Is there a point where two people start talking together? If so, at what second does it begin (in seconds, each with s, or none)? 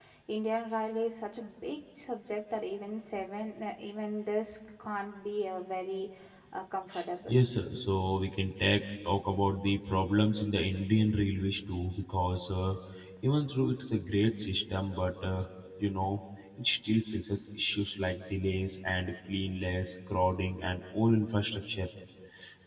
none